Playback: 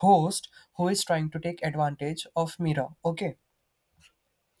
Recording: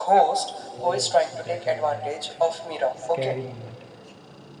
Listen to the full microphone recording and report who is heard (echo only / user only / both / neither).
both